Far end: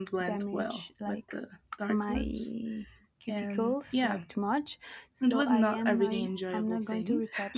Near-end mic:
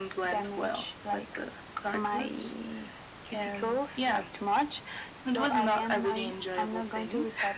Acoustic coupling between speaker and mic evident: Yes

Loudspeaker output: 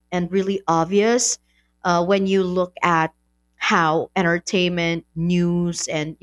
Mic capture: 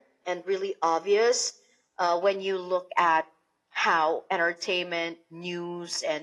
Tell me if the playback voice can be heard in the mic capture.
Yes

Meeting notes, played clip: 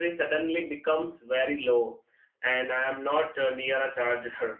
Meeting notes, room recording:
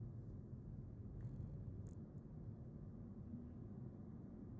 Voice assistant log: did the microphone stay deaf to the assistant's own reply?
Yes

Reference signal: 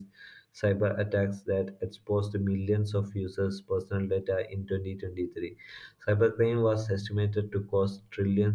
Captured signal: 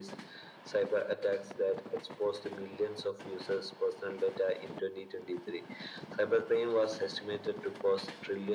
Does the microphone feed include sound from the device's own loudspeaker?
Yes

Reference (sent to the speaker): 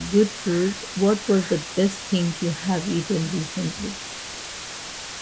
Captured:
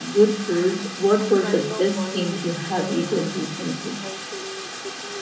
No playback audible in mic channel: No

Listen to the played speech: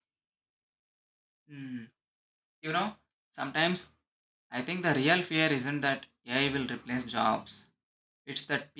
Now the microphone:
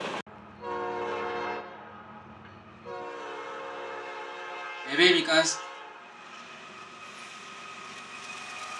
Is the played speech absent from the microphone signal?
Yes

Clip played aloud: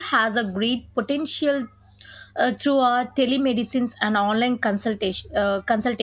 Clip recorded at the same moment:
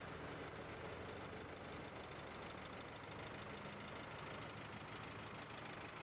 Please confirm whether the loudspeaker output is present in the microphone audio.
No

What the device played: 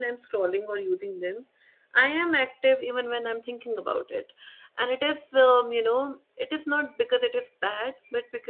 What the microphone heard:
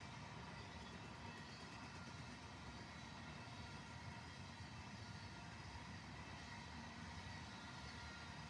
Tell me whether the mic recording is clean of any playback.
Yes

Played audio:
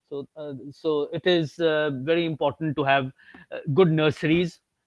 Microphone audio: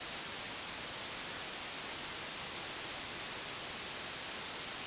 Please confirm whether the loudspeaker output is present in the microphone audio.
No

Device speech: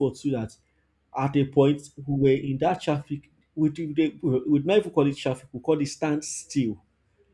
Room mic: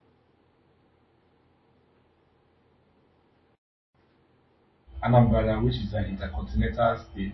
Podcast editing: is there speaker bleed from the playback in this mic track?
No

